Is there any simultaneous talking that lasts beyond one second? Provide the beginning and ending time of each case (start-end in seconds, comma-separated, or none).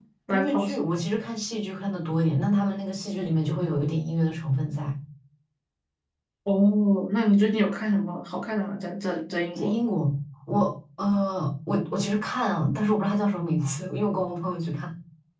none